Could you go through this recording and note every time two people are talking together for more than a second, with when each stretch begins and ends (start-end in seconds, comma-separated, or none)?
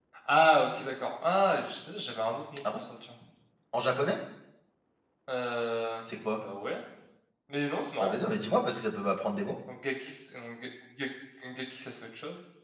none